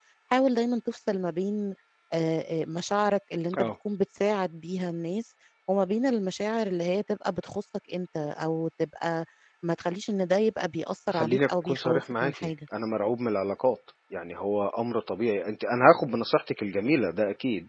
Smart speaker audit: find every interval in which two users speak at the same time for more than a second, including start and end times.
11.1-12.5

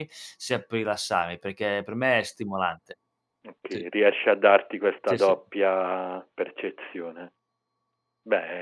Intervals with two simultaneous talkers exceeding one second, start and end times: none

